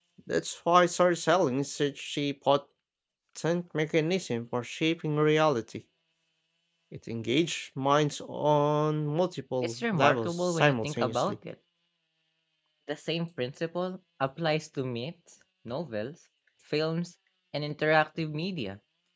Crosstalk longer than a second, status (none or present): present